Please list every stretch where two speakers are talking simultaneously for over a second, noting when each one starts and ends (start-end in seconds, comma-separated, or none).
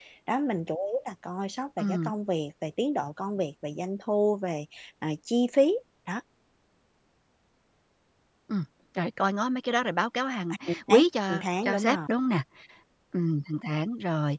10.7-12.0